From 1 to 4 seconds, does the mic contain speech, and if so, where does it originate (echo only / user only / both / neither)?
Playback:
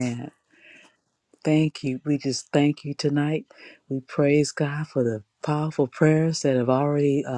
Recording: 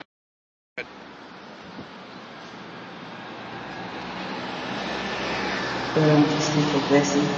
neither